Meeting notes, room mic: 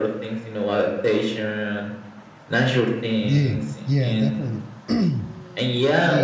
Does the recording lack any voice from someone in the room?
No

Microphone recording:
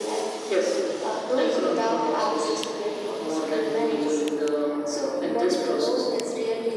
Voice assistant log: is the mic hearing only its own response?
Yes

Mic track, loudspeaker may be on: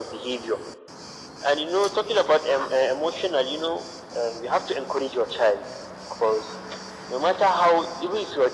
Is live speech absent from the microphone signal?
Yes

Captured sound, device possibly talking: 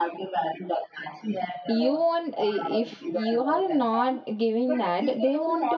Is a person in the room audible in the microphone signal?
Yes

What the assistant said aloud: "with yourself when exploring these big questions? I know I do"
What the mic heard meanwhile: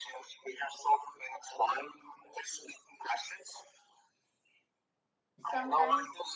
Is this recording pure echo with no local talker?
No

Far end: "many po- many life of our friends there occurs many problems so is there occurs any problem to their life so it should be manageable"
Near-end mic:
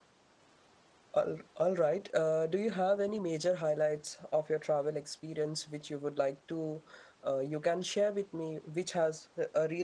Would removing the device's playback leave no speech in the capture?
No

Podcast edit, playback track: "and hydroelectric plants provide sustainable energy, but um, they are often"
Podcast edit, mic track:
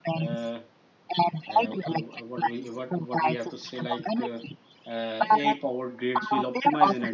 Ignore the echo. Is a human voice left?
Yes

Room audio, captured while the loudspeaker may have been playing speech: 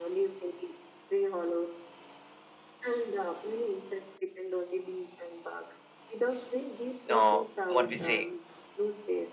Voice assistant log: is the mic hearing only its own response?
No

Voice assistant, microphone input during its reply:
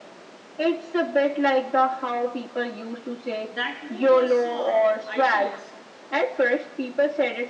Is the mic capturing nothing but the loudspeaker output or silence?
No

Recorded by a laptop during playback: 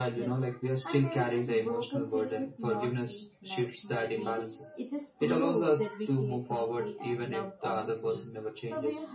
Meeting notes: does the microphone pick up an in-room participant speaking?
No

